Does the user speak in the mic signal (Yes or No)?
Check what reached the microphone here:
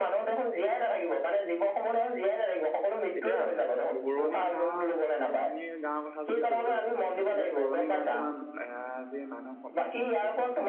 Yes